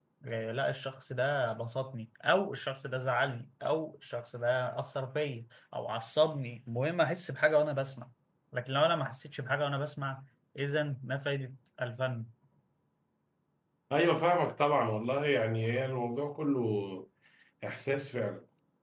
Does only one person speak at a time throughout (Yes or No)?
Yes